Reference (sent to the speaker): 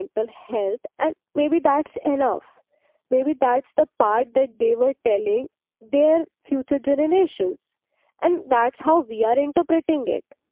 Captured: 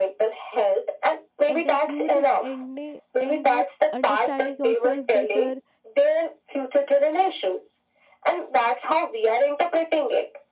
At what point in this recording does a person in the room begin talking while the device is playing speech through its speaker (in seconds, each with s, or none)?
1.5 s